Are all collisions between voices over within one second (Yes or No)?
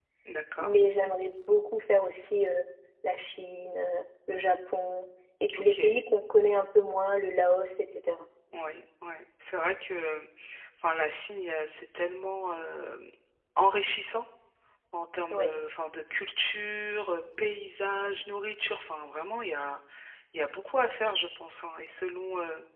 Yes